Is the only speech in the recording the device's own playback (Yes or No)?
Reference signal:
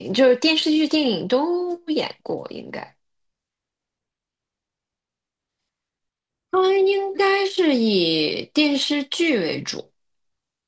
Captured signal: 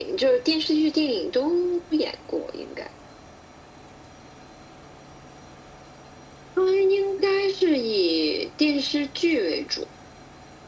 Yes